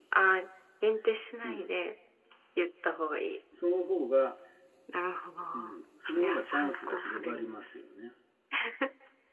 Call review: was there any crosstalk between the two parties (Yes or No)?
Yes